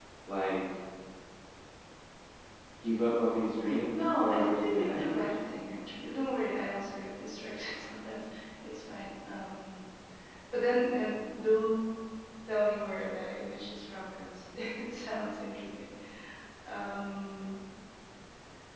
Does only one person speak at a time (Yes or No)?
No